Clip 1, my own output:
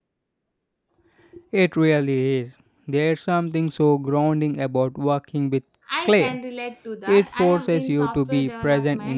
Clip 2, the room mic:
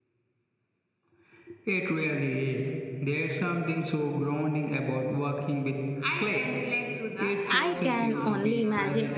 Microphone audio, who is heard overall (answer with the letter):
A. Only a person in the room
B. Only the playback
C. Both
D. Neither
C